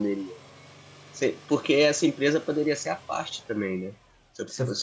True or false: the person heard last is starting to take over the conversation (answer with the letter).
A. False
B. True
A